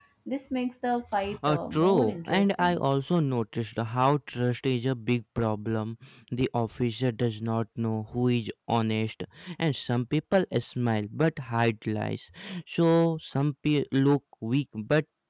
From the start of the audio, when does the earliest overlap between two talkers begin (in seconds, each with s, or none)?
1.5 s